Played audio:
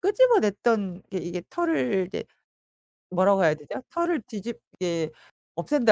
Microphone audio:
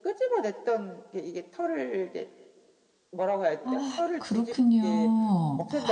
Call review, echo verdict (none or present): present